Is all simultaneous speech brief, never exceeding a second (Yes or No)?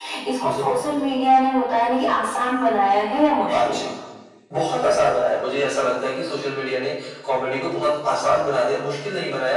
Yes